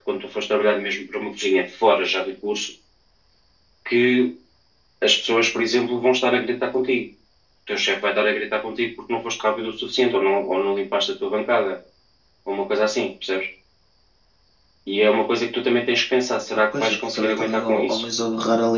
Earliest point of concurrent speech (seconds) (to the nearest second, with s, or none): 17 s